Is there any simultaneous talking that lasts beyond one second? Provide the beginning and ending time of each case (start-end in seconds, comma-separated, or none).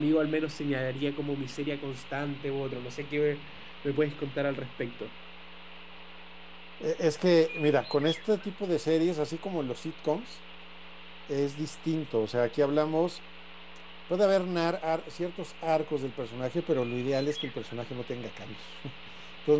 none